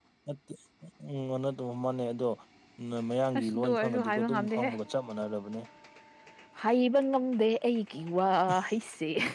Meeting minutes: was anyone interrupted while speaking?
Yes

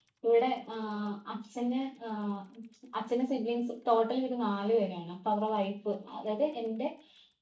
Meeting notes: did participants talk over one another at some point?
No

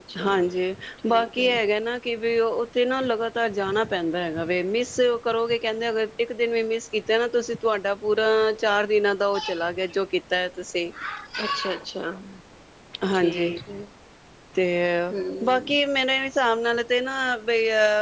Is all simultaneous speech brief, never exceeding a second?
Yes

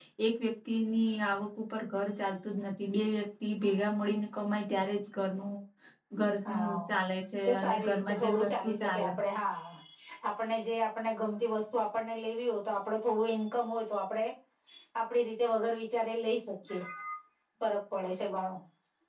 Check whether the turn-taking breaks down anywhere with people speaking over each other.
Yes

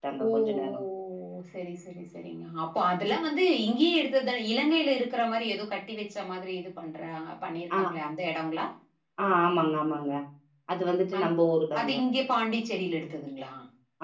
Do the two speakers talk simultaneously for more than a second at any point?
No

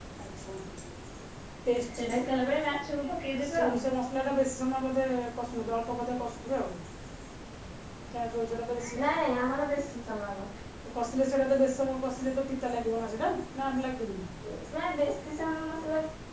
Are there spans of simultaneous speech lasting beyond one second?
No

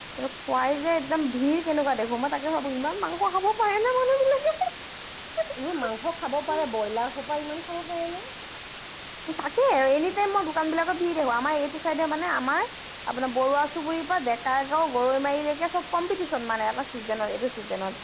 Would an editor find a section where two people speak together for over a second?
No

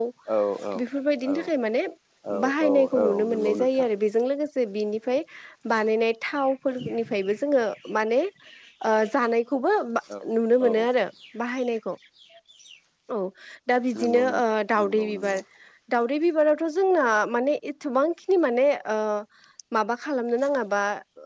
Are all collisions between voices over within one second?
No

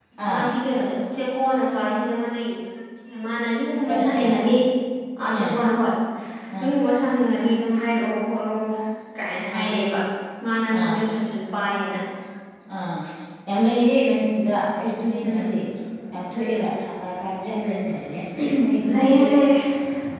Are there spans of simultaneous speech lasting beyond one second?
No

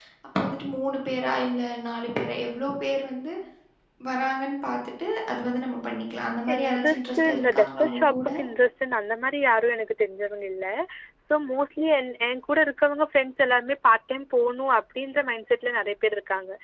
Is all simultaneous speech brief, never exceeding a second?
No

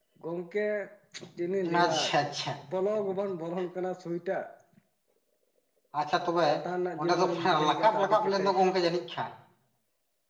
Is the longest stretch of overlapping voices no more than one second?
No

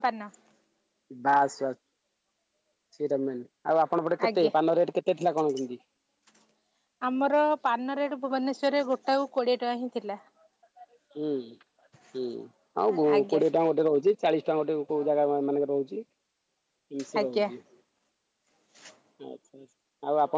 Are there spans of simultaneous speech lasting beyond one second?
No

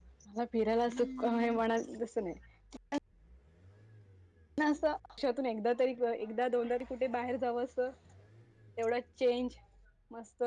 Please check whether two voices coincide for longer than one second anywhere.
No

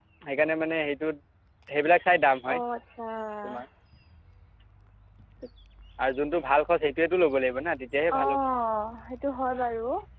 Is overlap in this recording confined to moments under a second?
Yes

